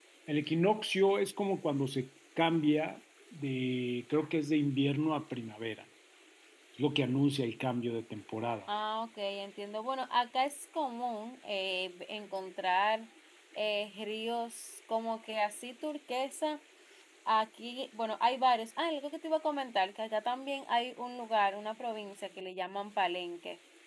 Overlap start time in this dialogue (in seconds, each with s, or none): none